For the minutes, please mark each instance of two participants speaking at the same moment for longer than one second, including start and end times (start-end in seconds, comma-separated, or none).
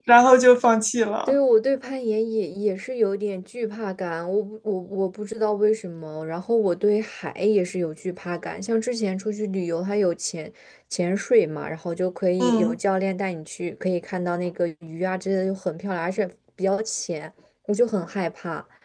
none